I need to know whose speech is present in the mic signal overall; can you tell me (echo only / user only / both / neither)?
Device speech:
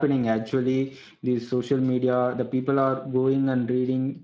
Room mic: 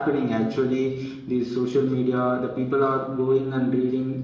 echo only